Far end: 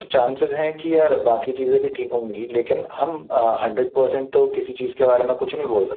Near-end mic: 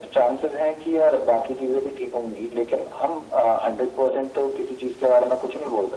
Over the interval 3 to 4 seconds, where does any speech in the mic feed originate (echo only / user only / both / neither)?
echo only